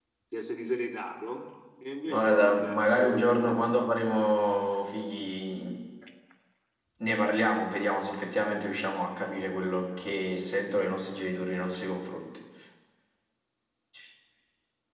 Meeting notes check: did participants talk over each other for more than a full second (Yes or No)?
Yes